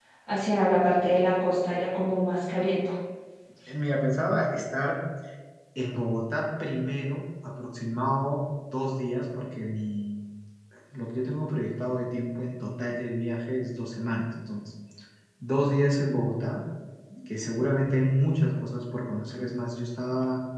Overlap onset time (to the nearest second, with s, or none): none